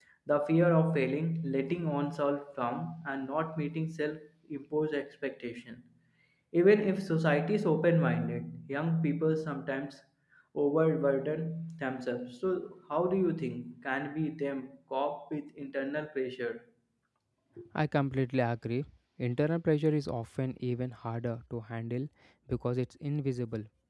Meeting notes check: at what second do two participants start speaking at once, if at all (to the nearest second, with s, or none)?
none